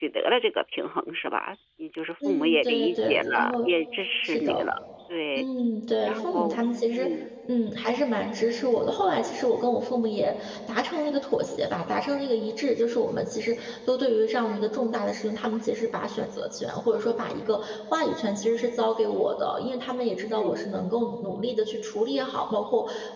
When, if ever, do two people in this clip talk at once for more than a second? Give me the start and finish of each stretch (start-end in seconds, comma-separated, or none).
2.2-3.7